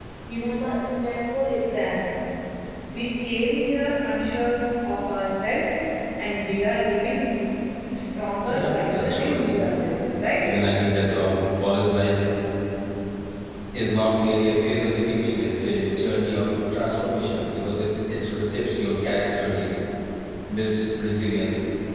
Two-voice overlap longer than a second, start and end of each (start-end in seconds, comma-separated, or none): 8.4-9.6